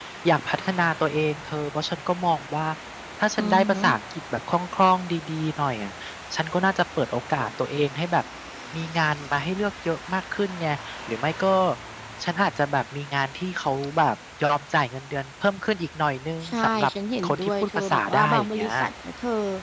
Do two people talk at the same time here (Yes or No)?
Yes